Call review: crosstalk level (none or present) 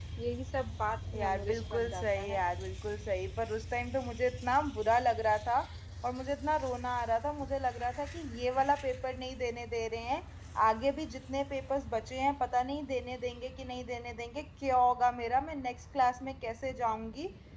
present